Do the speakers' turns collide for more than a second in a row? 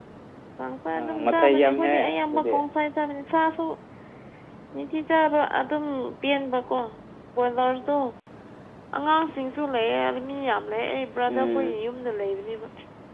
Yes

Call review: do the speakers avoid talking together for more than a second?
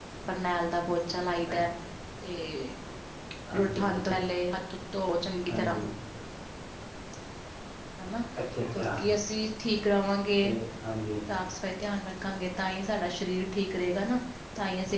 Yes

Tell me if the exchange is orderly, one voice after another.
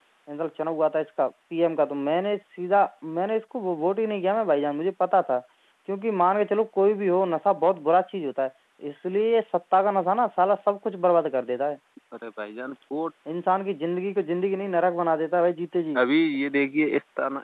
Yes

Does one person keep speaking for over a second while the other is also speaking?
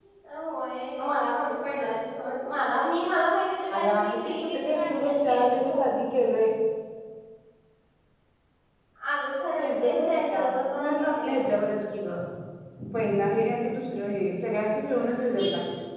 Yes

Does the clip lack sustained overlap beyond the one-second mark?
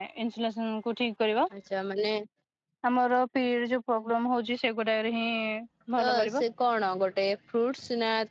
Yes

